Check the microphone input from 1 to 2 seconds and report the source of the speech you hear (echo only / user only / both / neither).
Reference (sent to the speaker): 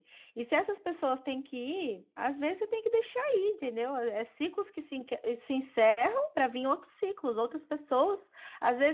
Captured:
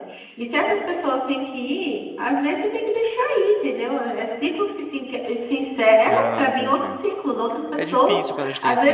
echo only